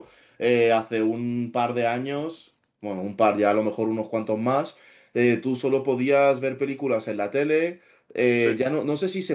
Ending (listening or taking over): listening